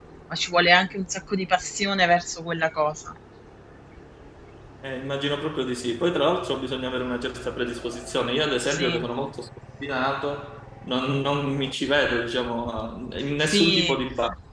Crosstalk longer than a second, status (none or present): none